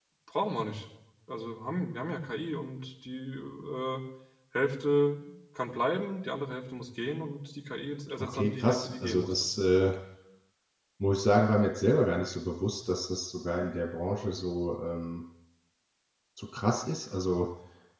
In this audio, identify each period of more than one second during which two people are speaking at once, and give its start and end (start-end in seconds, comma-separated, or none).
8.2-9.5